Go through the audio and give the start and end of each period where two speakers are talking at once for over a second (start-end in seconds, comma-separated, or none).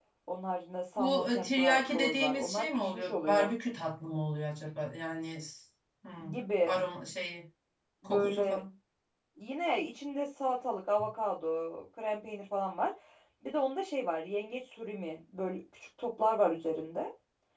1.0-3.5